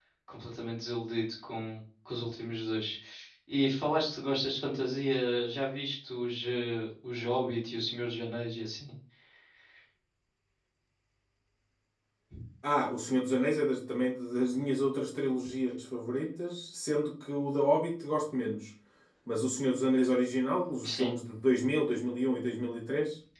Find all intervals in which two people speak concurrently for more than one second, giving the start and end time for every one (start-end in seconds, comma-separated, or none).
none